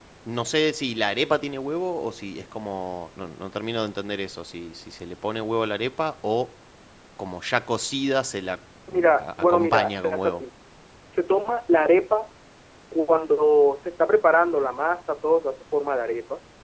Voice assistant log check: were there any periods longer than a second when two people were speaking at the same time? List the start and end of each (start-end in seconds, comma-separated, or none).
8.9-10.4